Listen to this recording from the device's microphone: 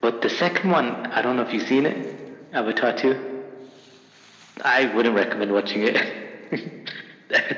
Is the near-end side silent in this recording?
Yes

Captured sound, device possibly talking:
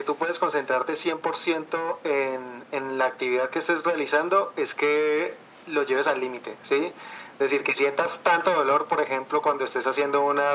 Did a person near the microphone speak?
No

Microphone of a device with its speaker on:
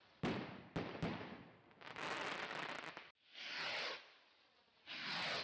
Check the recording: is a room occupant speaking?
No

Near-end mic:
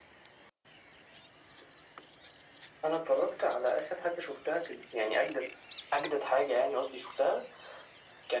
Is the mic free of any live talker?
Yes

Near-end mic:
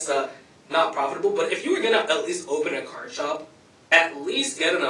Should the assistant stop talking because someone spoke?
No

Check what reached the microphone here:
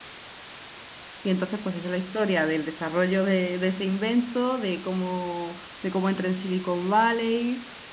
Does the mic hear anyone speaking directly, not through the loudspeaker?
Yes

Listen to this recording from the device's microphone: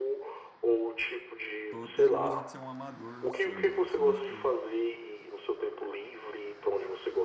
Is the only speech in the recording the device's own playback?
No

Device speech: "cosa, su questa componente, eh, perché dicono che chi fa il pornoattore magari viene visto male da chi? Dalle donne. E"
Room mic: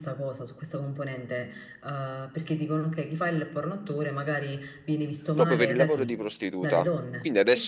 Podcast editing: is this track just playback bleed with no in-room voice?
No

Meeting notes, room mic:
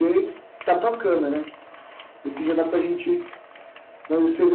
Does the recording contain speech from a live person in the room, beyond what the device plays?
No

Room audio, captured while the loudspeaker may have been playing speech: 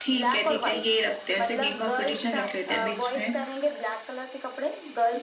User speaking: No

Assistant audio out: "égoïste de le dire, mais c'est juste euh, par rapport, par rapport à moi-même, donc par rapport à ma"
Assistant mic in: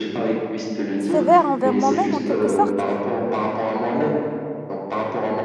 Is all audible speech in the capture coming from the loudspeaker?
No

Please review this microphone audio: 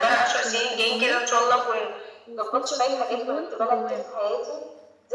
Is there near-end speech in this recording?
Yes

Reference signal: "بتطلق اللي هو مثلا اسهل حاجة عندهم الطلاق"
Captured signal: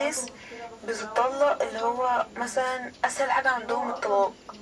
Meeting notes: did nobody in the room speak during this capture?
No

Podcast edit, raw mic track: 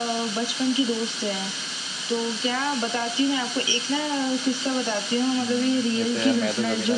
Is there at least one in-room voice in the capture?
Yes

